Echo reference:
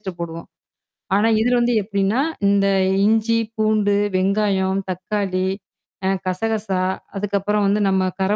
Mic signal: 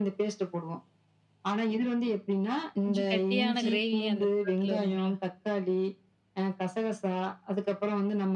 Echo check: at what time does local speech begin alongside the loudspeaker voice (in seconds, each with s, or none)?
2.8 s